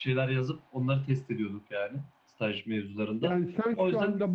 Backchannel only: No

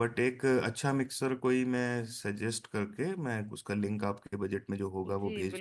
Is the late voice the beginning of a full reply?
Yes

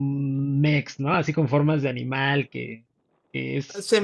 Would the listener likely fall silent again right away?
No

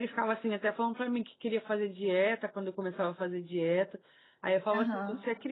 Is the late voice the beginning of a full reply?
No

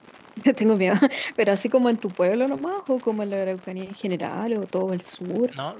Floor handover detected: Yes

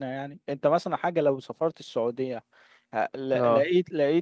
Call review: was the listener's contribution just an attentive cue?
Yes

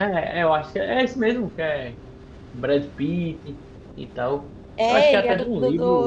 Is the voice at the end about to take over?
Yes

